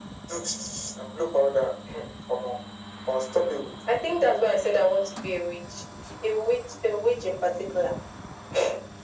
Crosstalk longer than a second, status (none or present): none